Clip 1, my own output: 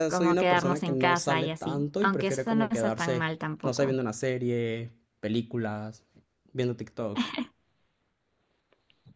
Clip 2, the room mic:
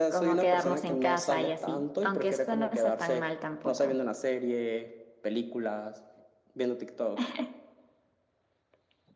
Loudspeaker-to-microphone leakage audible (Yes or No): Yes